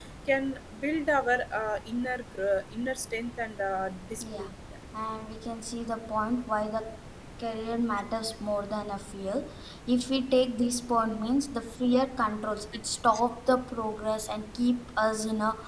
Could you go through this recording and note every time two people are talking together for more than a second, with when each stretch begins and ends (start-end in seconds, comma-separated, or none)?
none